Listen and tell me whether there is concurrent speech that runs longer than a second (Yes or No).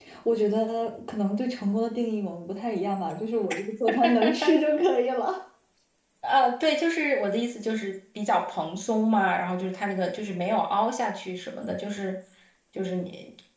No